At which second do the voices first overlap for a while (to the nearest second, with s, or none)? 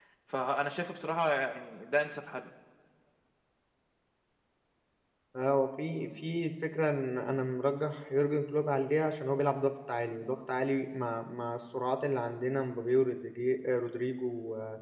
none